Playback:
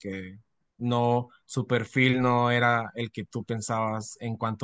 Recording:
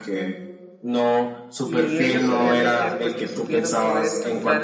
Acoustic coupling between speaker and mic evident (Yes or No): Yes